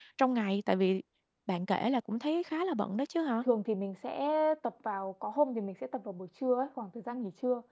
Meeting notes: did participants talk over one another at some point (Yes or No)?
No